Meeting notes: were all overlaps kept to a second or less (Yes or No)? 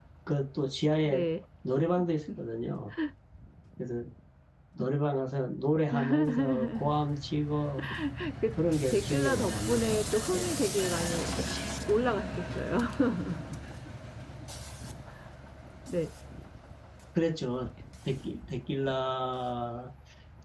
No